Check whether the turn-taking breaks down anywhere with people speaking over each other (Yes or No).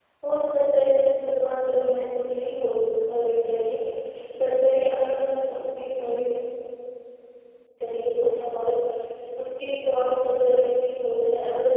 No